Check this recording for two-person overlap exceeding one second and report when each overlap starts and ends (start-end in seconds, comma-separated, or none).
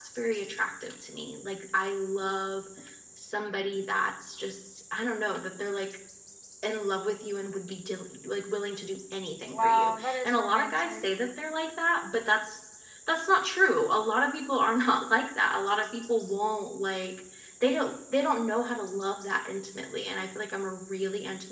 9.5-11.0